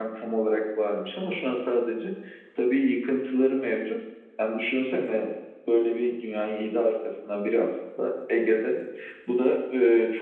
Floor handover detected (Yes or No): No